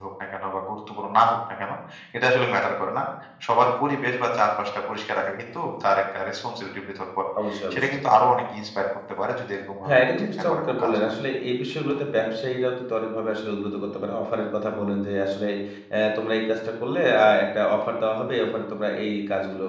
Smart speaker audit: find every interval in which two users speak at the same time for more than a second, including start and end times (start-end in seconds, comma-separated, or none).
9.8-11.2